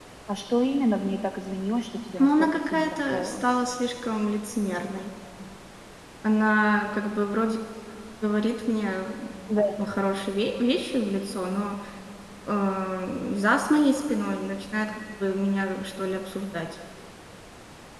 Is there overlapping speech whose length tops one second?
Yes, from 2.2 s

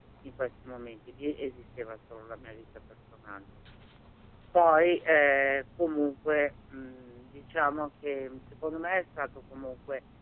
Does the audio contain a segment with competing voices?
No

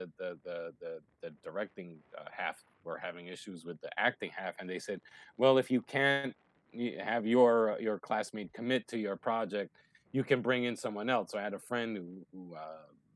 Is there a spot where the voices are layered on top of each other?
No

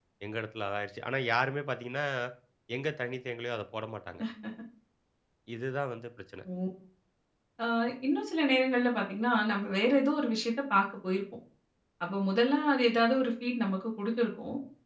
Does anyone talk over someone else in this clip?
No

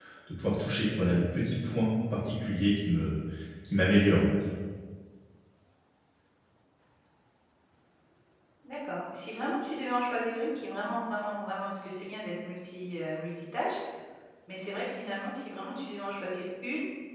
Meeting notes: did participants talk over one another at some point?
No

